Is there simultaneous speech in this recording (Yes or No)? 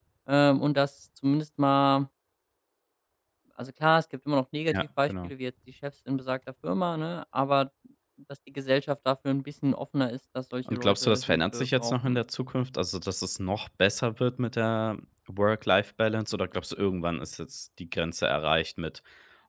Yes